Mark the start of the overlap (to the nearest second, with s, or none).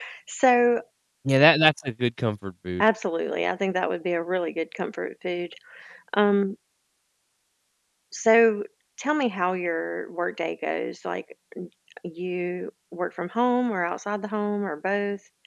none